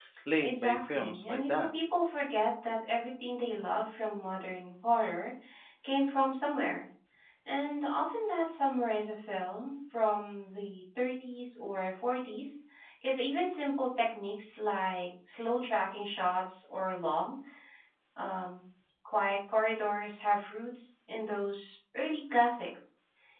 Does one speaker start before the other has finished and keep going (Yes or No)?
Yes